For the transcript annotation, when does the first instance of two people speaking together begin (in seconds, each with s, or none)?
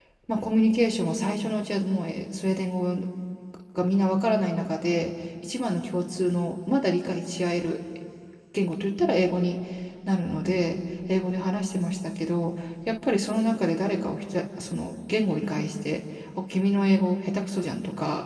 none